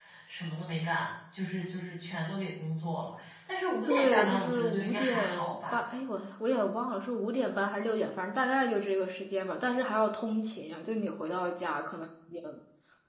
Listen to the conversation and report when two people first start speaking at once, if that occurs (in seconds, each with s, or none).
3.9 s